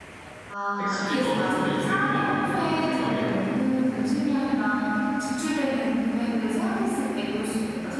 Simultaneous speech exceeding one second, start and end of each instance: 0.8-3.3

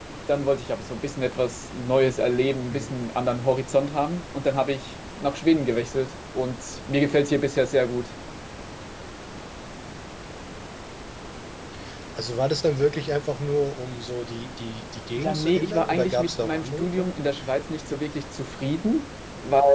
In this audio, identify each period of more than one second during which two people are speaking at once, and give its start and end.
15.2-17.2

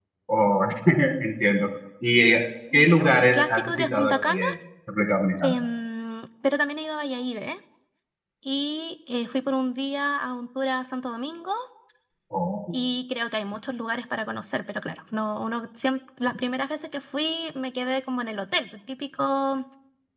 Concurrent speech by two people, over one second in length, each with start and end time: 2.7-4.4

